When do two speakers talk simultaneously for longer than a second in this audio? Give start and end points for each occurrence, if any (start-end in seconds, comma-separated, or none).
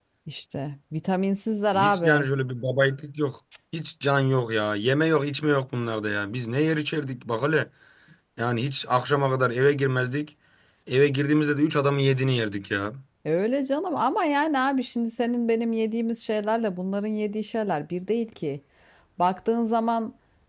none